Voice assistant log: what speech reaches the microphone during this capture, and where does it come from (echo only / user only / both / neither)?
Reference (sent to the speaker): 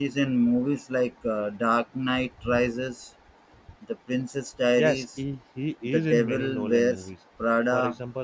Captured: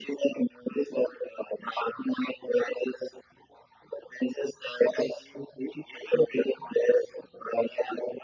echo only